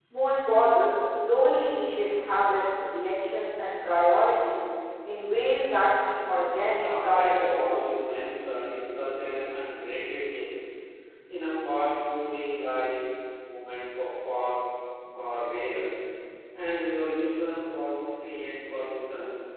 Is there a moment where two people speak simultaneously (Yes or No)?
Yes